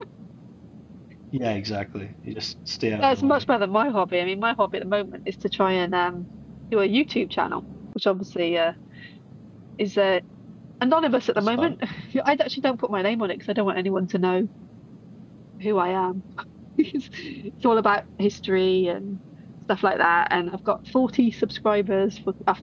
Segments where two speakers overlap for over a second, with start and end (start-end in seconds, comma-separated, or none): none